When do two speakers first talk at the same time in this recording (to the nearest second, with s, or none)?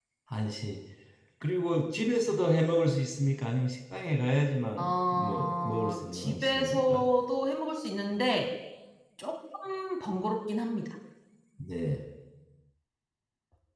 5 s